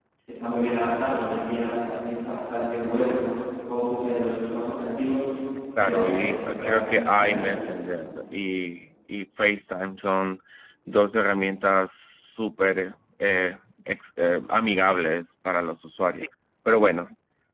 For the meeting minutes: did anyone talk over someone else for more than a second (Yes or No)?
Yes